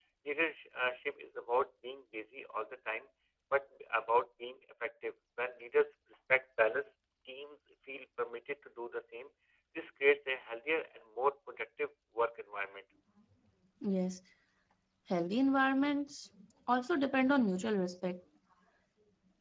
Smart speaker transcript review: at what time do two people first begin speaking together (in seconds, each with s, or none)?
none